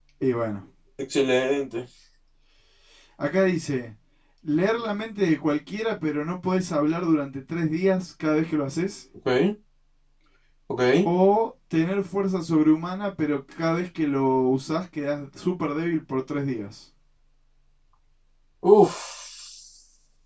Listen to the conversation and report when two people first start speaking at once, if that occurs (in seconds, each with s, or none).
none